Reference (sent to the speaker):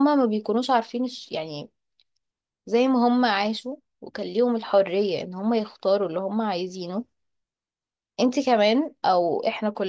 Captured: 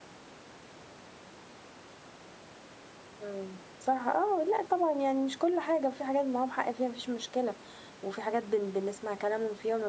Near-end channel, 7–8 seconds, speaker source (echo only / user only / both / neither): user only